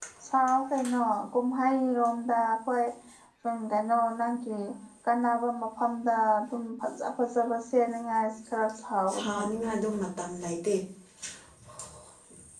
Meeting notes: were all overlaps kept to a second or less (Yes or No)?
Yes